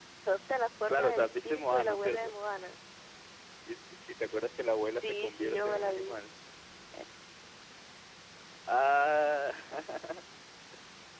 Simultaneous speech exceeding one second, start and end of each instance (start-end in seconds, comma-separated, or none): 0.9-2.3, 4.9-6.2